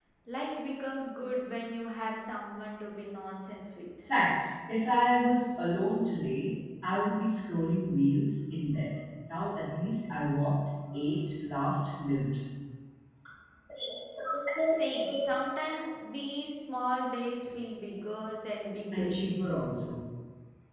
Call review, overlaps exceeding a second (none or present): none